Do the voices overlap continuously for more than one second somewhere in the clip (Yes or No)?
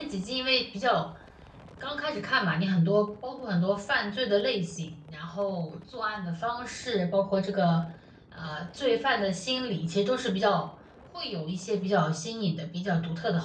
No